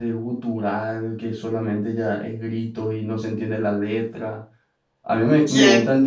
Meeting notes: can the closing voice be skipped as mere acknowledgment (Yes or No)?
Yes